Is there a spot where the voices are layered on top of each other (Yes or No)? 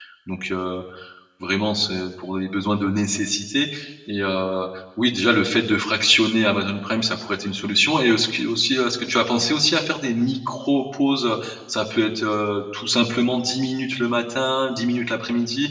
No